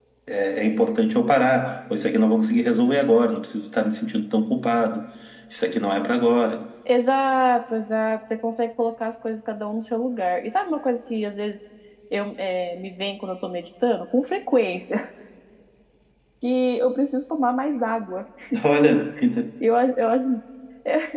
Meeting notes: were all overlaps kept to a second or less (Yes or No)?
Yes